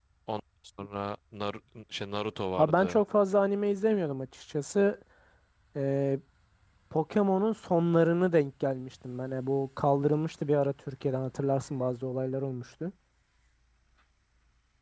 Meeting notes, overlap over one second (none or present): none